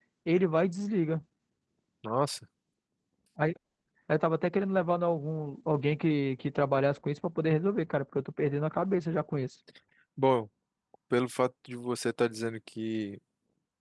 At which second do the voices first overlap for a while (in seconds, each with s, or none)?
none